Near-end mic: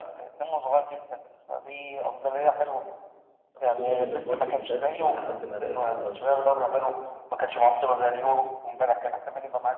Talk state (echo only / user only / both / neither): both